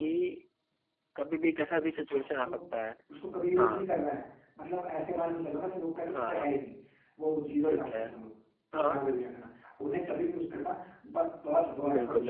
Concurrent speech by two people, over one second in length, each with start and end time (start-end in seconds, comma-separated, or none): none